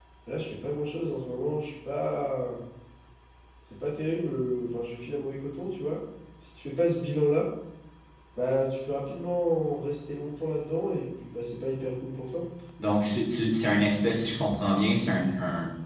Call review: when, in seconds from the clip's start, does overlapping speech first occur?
none

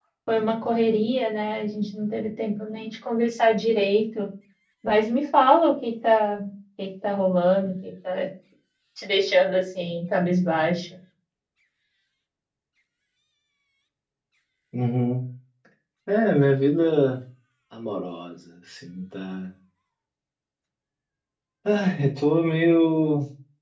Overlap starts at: none

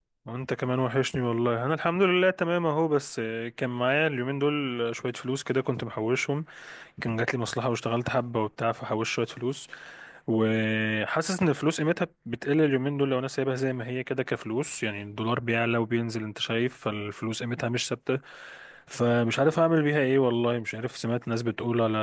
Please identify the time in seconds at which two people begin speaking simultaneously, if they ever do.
none

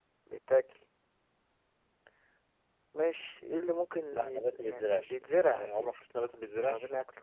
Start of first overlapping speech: 4.1 s

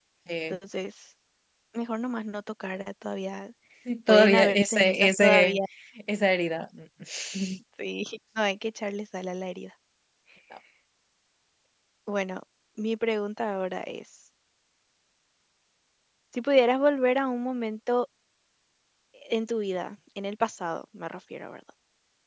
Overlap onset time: 4.1 s

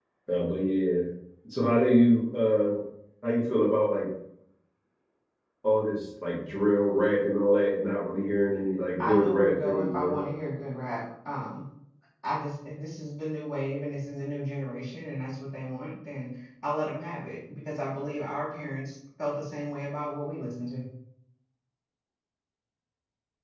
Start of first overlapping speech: 9.0 s

